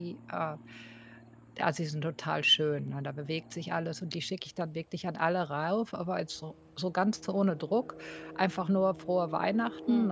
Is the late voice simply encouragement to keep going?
Yes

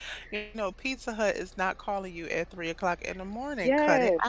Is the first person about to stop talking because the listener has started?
Yes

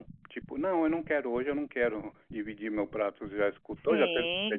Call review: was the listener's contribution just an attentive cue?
No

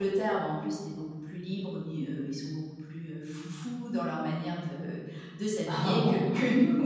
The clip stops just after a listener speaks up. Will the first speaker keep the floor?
Yes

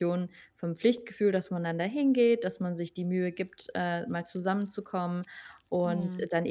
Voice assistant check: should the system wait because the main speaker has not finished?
Yes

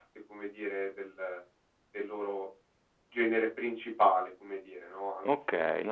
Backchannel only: No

